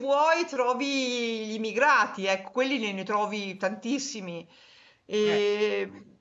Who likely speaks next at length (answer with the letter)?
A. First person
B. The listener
A